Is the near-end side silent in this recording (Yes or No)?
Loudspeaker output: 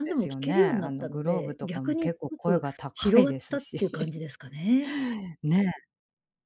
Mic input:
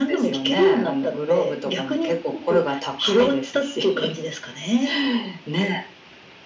Yes